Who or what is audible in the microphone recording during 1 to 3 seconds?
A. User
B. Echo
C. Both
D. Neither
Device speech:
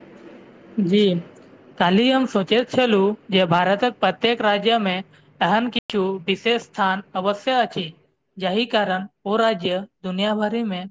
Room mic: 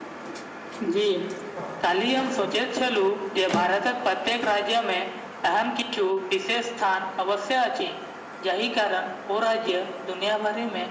B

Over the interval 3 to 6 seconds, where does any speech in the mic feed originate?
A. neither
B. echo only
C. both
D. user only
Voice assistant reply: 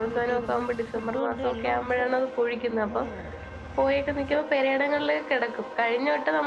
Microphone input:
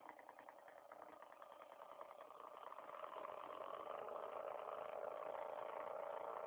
A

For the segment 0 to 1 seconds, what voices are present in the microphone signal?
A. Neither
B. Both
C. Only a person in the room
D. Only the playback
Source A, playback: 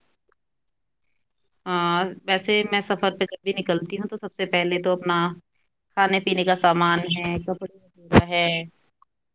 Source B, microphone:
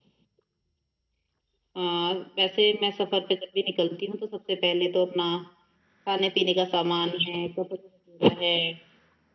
A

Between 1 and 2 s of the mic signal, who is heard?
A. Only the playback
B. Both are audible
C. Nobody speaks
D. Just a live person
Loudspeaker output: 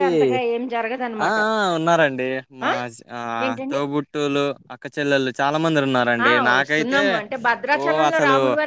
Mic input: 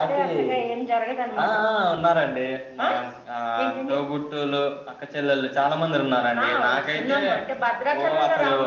A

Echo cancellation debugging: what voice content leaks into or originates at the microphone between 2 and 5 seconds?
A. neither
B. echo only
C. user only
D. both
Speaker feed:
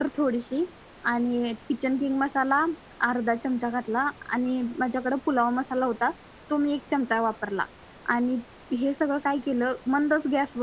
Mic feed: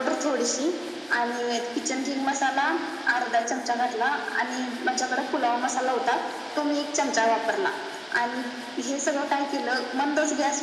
B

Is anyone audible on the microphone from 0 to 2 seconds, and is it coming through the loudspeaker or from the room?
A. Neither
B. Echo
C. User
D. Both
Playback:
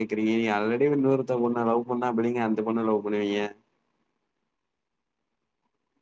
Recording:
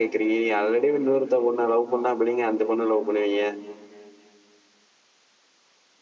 B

